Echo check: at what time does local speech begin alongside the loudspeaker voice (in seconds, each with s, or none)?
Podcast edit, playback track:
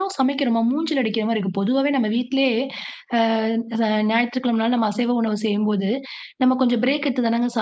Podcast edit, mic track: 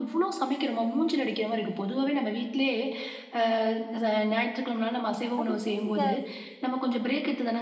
5.4 s